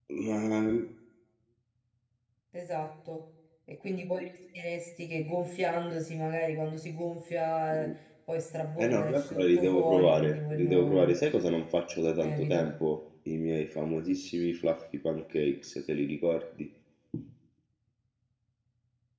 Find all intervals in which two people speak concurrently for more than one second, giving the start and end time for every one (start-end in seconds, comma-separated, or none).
8.8-11.1